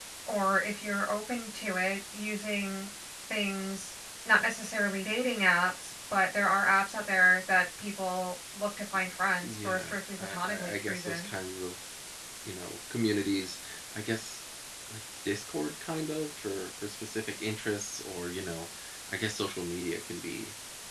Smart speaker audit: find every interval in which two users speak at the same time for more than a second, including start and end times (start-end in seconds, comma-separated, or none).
9.4-11.3